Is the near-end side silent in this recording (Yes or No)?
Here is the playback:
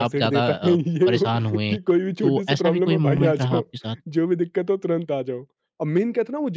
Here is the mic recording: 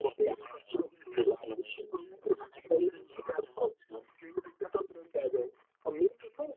Yes